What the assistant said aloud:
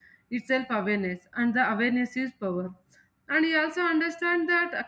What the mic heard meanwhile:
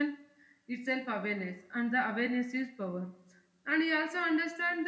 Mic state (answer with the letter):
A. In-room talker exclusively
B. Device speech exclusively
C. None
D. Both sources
B